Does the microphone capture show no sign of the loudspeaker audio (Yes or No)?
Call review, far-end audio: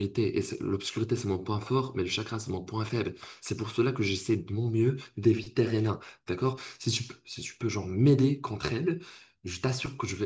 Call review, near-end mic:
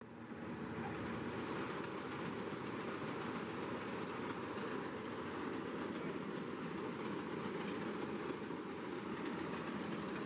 Yes